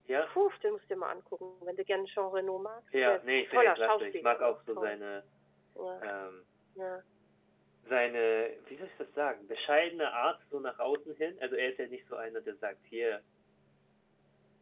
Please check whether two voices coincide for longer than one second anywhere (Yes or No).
Yes